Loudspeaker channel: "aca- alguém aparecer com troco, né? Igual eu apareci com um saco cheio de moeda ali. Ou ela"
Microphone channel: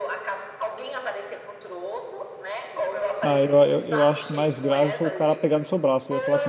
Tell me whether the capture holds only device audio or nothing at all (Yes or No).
No